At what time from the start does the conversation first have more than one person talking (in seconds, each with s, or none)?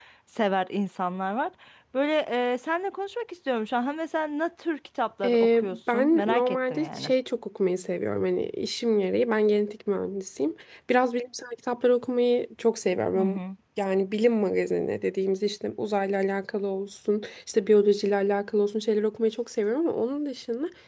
5.2 s